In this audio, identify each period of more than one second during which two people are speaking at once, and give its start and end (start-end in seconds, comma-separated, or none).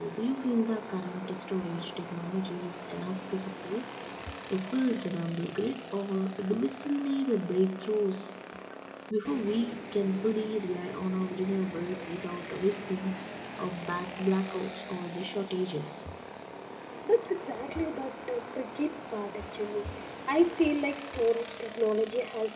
none